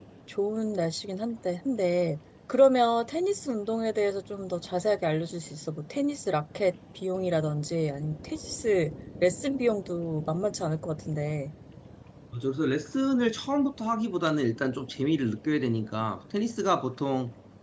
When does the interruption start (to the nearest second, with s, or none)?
none